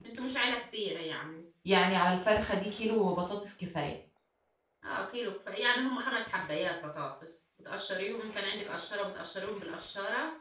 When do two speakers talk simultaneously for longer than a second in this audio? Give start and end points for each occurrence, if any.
none

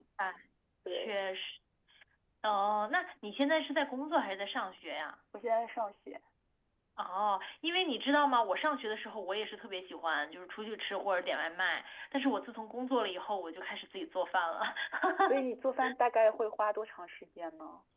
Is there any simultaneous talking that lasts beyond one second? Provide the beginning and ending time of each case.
none

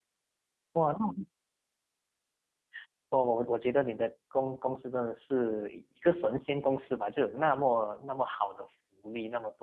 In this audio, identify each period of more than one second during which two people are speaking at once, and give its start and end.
none

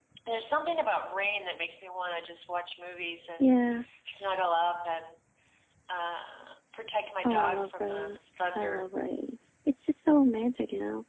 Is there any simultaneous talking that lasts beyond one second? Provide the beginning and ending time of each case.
7.2-8.9

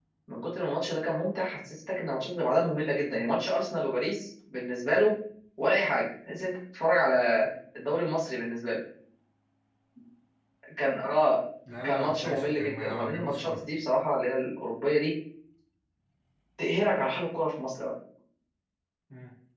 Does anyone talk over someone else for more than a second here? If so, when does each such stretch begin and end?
11.8-13.7

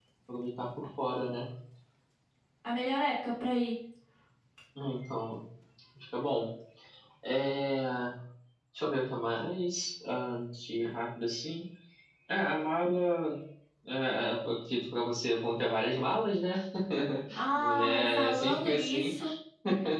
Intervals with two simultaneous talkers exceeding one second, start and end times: 17.5-19.1

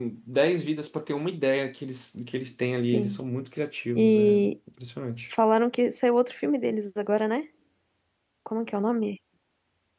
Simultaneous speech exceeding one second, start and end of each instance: none

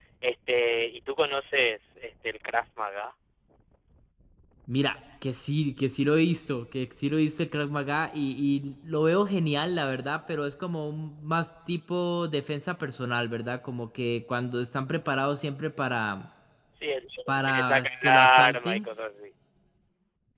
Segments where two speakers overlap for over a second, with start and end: 17.4-18.9

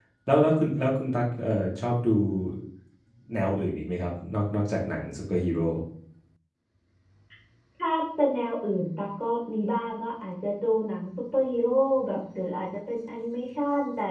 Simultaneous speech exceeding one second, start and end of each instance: none

